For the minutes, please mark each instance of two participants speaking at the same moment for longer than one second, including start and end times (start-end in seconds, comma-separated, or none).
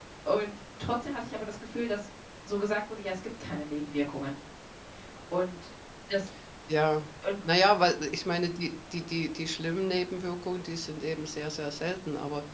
none